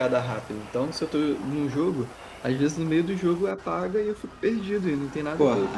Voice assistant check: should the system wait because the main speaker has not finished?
No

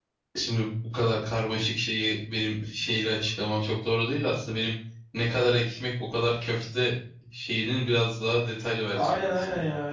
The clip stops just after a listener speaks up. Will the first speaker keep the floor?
No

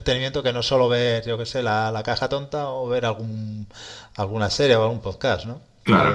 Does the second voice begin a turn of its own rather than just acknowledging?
Yes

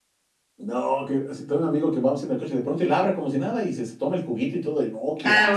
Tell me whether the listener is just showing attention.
No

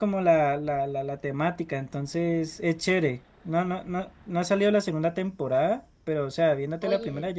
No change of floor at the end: Yes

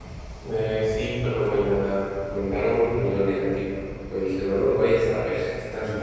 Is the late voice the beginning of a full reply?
Yes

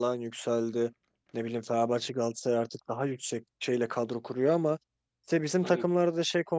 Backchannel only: Yes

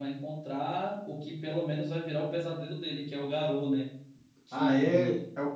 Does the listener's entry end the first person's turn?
Yes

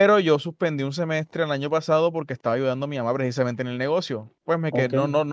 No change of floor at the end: Yes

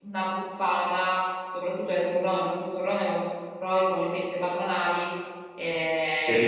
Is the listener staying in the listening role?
Yes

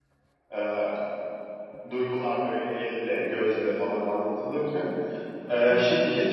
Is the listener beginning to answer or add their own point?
No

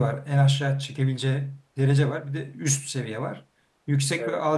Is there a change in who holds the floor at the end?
No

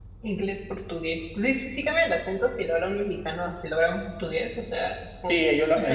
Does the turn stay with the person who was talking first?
No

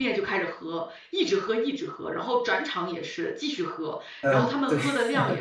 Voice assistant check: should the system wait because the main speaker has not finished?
Yes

